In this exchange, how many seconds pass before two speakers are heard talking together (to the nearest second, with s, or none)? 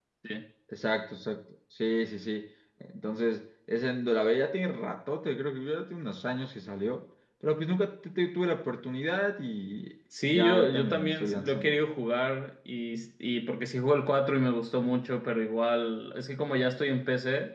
10 s